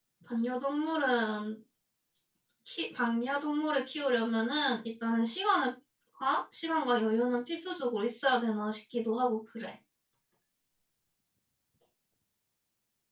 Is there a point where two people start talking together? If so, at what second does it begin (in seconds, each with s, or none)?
none